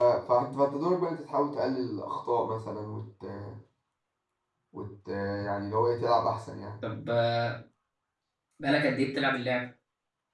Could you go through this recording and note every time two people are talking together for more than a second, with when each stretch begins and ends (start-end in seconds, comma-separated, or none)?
none